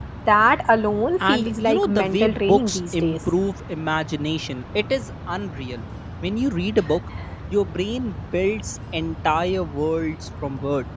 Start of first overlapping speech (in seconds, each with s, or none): 1.3 s